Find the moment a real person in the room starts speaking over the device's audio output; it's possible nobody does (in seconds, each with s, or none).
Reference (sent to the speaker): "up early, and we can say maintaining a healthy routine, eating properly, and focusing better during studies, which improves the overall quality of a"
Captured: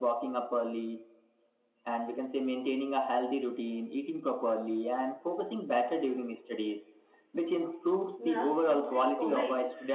8.2 s